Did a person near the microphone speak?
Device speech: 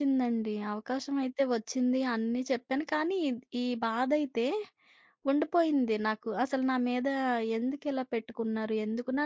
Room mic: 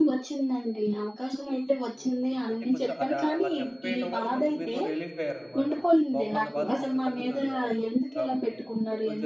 Yes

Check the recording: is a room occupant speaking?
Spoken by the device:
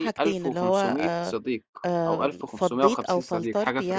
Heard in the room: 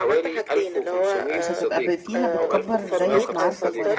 Yes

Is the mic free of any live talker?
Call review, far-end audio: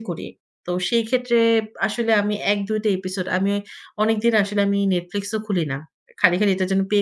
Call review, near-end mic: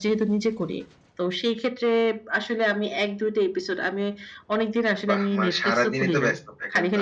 No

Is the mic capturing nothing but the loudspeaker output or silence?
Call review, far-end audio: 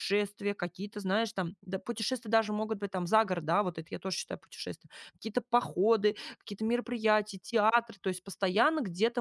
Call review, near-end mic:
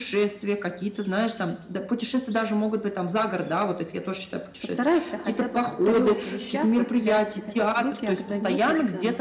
No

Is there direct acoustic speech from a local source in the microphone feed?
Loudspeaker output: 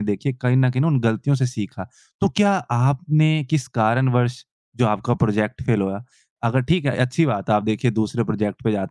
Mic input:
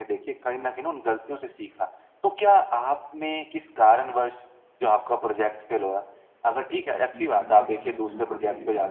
Yes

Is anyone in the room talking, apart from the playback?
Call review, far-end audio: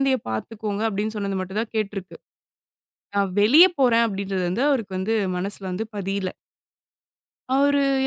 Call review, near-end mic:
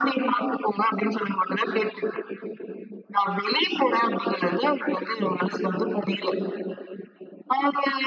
No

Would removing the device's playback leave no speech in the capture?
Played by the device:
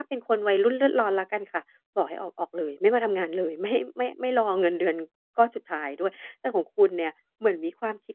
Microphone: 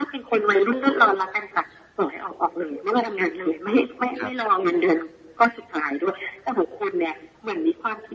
No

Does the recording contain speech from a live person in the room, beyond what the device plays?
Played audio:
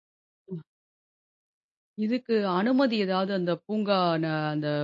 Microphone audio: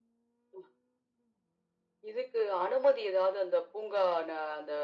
No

